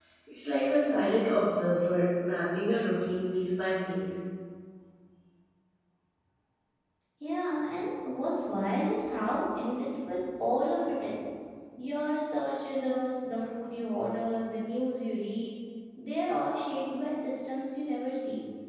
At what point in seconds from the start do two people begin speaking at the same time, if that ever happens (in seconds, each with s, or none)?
none